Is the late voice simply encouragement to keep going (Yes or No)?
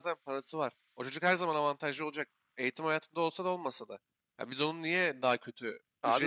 Yes